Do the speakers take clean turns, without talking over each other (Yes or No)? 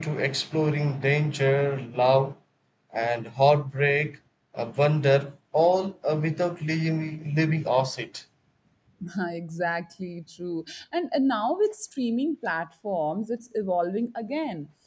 Yes